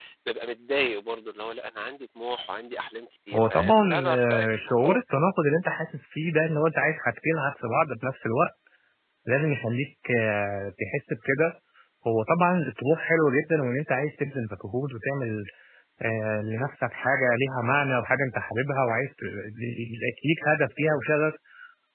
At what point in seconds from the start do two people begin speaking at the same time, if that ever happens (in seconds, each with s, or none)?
3.3 s